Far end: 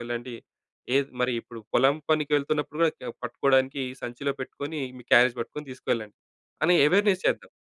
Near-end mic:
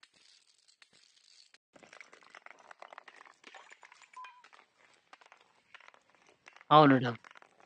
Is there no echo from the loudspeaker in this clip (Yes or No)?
Yes